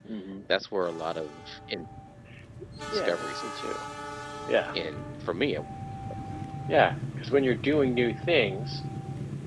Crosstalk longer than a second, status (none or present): none